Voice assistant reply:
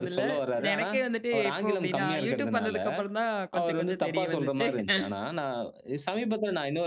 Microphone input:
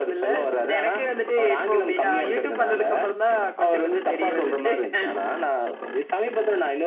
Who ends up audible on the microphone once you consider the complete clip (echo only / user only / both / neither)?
echo only